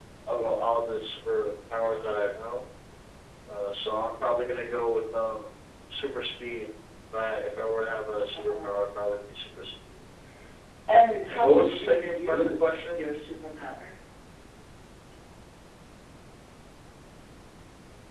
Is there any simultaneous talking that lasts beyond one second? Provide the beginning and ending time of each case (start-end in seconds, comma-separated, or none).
11.3-13.0